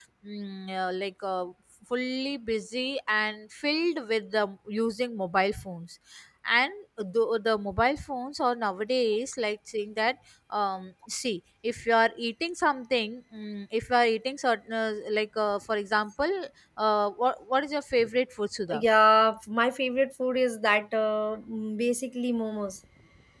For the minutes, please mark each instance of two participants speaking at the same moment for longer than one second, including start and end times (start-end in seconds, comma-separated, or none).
none